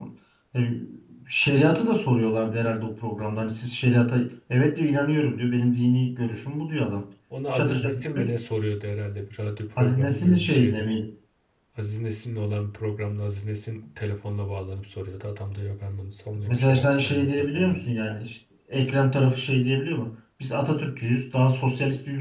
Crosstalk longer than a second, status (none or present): present